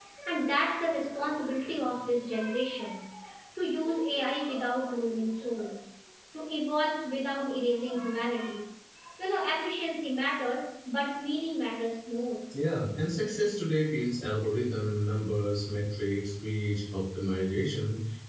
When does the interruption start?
none

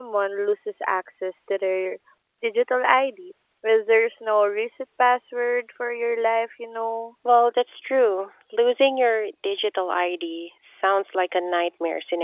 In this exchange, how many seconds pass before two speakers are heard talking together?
none

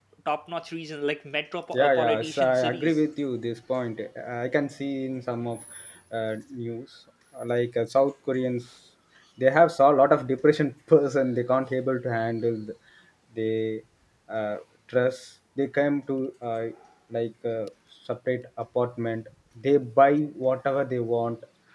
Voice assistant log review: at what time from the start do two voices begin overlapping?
1.7 s

